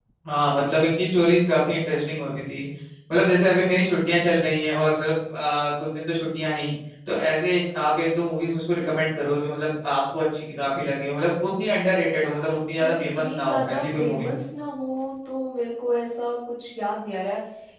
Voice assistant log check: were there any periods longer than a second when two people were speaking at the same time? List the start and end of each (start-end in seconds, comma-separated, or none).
12.8-14.3